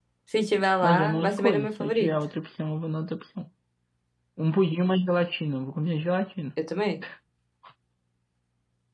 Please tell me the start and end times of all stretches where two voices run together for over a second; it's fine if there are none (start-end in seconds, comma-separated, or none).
0.8-2.1